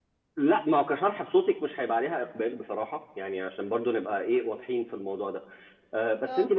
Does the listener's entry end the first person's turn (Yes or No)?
No